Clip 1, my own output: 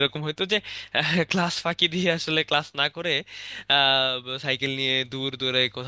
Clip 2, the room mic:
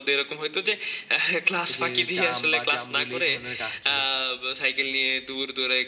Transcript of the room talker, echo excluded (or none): এই যে জাম বা জামরুল এই ধরনের গাছ ছিল